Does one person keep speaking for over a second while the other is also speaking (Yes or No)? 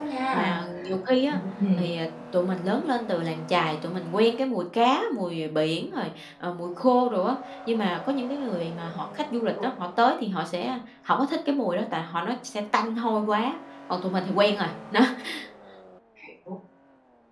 No